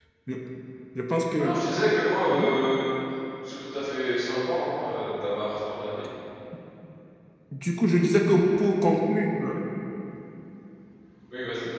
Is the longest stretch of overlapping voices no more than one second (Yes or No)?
Yes